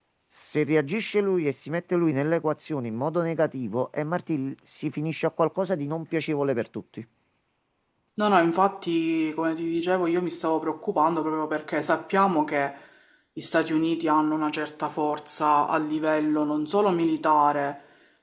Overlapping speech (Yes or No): No